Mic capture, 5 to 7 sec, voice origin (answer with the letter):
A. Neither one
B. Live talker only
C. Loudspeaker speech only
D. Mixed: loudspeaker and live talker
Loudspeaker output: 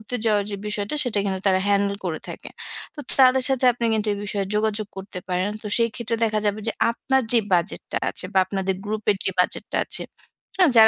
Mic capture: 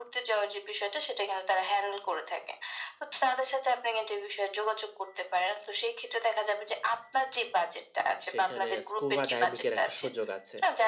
C